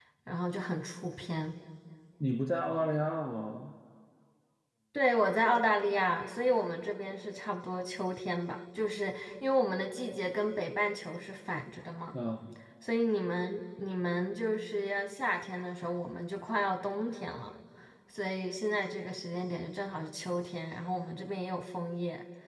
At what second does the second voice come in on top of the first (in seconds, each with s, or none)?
none